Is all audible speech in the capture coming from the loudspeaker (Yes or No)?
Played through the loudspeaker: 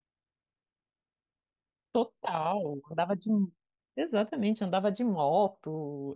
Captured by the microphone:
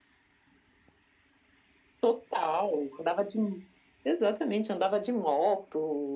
Yes